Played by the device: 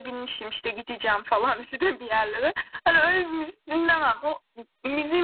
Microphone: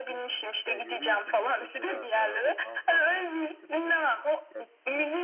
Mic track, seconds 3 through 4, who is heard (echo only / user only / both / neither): both